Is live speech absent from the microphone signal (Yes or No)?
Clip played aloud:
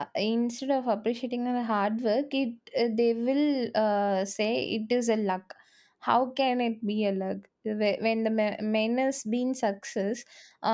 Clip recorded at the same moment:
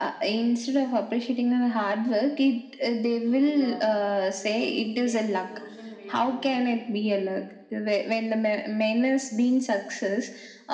No